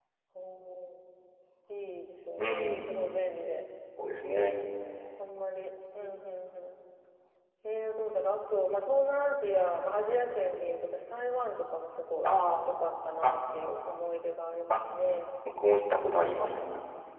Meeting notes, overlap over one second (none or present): none